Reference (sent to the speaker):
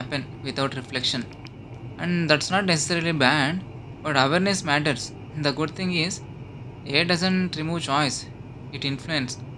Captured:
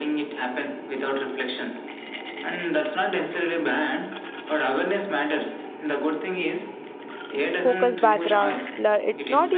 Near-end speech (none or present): present